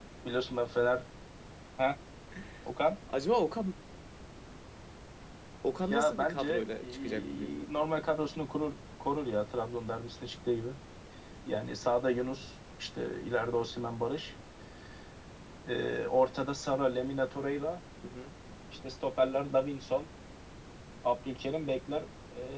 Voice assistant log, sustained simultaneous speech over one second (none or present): present